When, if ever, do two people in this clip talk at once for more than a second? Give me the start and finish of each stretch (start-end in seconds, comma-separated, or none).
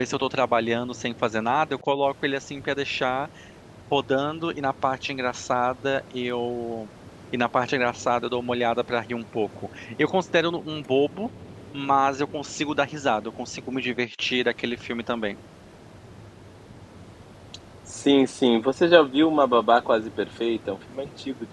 none